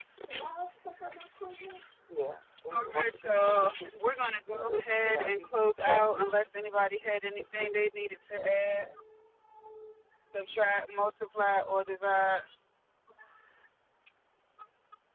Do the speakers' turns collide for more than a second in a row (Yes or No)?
Yes